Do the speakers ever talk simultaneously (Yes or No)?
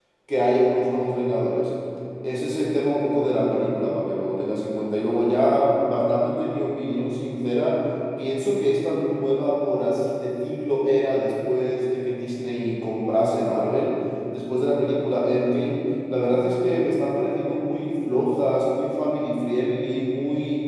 No